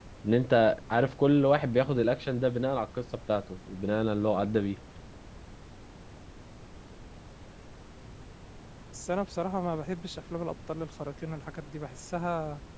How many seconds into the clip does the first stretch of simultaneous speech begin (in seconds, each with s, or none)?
none